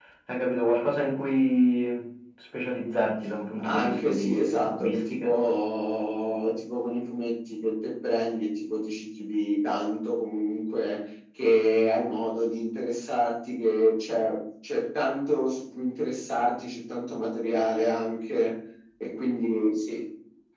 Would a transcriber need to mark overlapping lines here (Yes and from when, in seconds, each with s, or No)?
Yes, from 3.6 s